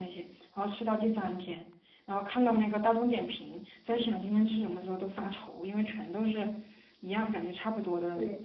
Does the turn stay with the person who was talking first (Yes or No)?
No